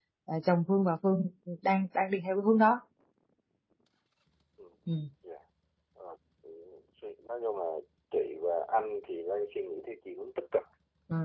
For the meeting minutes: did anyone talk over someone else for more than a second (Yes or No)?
No